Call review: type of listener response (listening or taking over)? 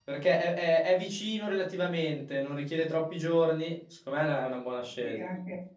taking over